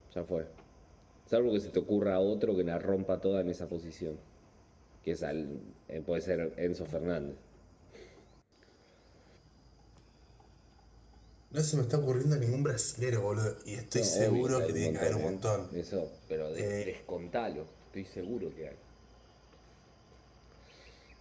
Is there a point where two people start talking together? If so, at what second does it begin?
13.9 s

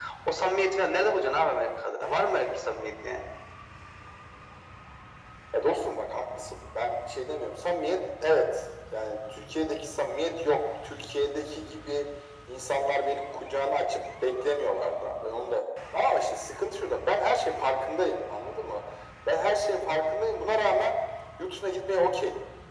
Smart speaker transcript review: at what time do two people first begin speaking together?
none

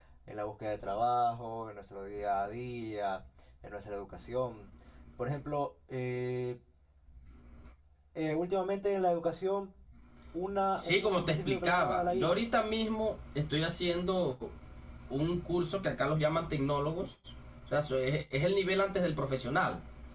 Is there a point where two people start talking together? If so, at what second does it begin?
10.8 s

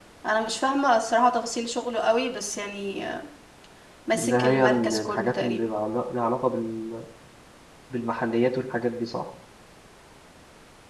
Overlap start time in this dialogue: 4.1 s

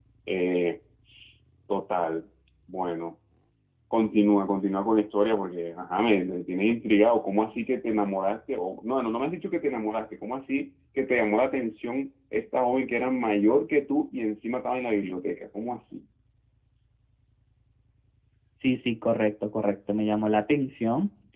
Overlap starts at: none

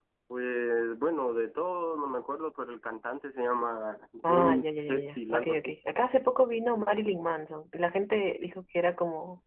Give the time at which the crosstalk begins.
4.2 s

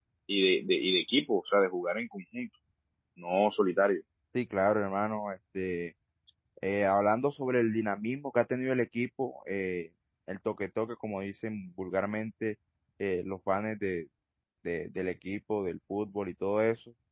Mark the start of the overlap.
none

